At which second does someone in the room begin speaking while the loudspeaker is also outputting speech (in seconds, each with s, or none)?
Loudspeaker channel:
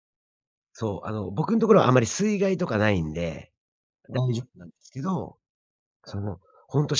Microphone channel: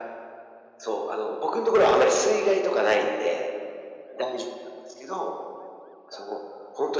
none